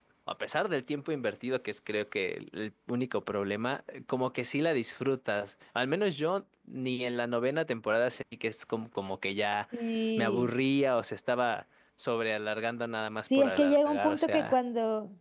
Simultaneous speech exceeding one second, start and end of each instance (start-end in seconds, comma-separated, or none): 13.3-14.6